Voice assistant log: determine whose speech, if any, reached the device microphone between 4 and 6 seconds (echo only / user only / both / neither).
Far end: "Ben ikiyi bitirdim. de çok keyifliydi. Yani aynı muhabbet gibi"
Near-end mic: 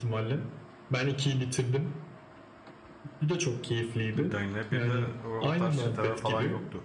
both